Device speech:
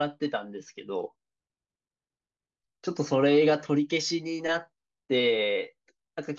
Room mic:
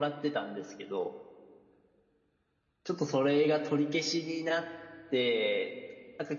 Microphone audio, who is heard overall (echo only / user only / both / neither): echo only